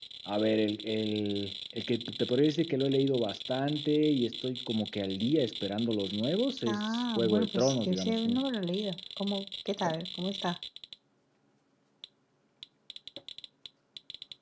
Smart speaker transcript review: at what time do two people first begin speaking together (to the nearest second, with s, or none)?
7 s